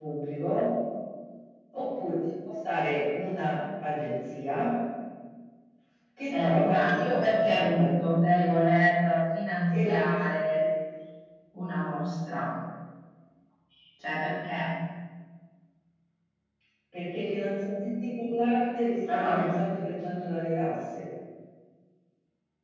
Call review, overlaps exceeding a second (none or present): present